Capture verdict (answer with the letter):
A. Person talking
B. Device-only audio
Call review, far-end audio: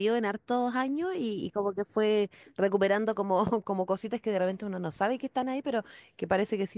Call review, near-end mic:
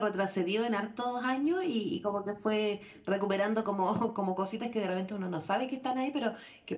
B